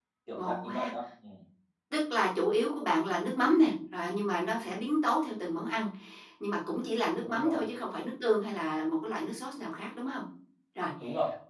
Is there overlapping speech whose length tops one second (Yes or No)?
No